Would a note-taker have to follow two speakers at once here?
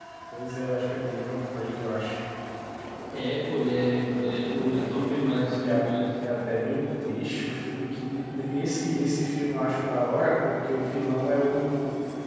Yes, from 4.3 s

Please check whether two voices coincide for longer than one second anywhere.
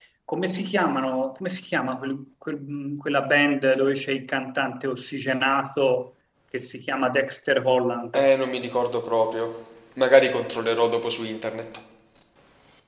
No

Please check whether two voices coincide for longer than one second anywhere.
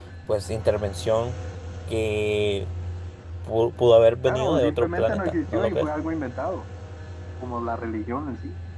Yes, from 4.2 s

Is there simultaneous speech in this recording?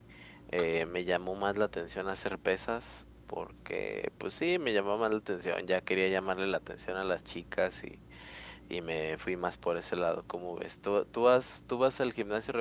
No

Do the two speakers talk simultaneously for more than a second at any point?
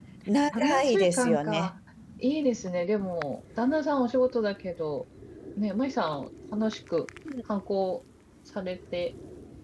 Yes, from 0.5 s

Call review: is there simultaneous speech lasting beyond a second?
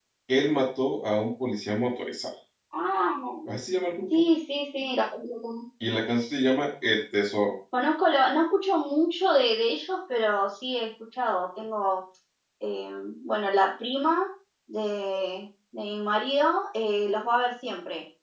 No

